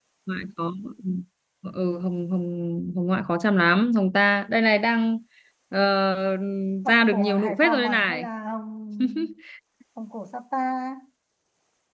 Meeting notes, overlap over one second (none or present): present